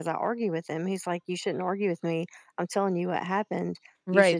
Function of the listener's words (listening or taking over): taking over